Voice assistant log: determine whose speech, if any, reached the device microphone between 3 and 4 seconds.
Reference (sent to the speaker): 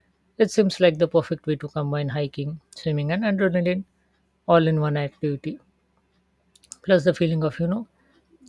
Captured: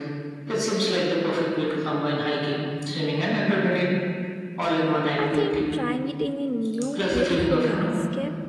echo only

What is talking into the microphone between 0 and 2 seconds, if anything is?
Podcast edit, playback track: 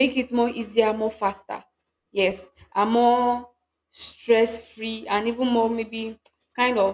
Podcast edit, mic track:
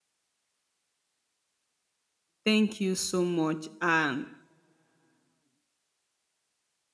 neither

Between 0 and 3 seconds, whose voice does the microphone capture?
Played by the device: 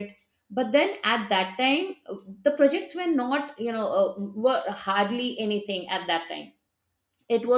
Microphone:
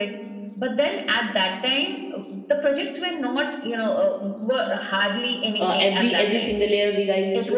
echo only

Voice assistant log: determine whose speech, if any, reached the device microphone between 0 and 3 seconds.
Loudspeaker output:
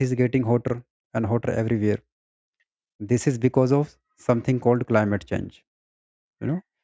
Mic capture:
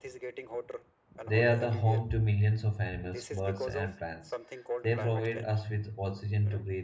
both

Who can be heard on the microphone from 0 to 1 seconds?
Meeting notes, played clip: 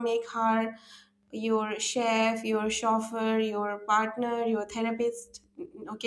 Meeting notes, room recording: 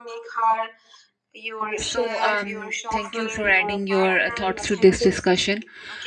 echo only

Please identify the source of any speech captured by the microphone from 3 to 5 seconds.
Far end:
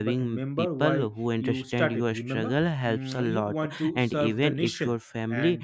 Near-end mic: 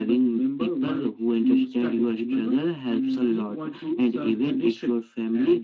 echo only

